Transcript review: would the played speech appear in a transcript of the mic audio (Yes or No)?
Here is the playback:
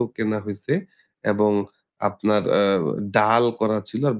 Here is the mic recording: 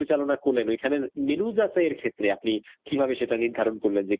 No